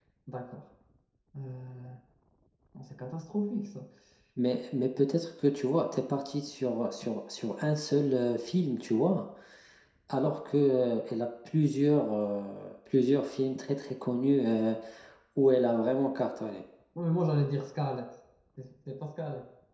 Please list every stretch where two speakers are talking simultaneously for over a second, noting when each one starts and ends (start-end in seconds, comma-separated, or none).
none